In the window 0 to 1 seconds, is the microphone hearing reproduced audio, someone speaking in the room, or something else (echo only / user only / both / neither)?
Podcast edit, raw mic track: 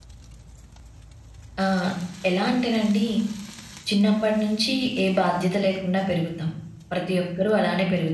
neither